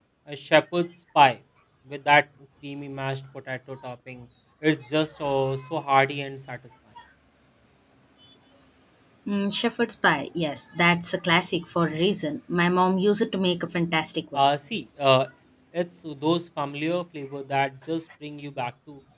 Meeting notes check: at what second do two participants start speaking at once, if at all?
none

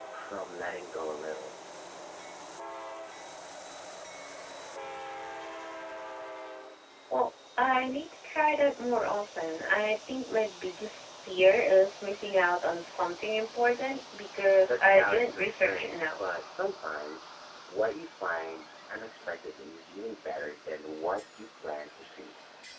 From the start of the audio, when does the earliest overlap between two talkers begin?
14.7 s

